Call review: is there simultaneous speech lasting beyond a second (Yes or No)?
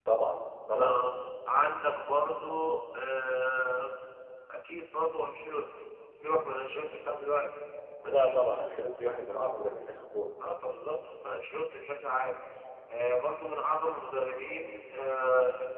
No